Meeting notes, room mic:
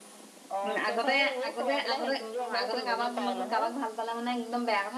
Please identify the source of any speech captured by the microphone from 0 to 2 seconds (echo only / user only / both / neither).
both